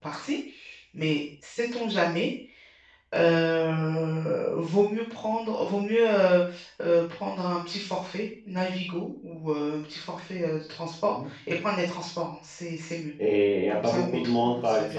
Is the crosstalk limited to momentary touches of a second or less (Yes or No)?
No